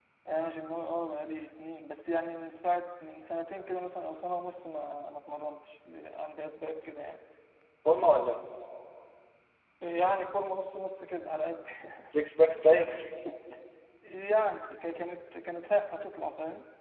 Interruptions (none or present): none